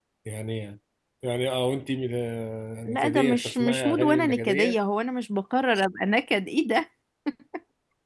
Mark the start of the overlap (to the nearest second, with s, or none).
3 s